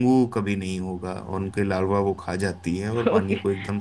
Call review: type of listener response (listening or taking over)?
taking over